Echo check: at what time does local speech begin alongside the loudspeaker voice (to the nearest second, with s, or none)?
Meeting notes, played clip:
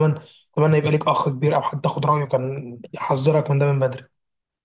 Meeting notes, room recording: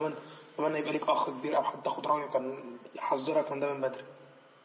none